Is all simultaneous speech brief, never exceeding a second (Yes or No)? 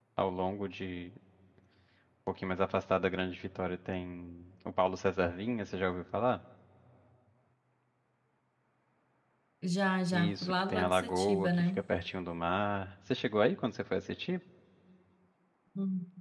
No